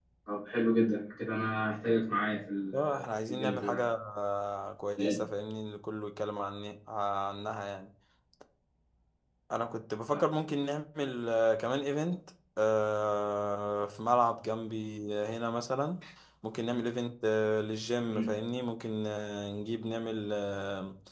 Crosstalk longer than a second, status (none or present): present